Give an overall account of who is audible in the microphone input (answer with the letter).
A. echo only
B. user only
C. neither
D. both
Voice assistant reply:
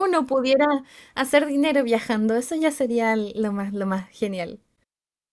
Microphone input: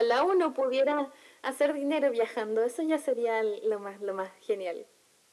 A